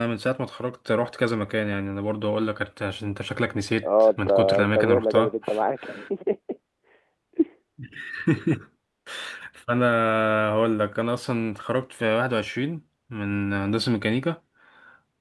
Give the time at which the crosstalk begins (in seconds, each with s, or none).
3.8 s